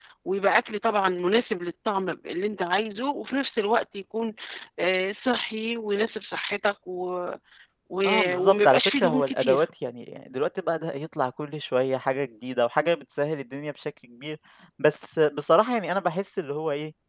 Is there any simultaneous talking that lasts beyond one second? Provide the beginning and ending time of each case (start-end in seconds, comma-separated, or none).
8.1-9.6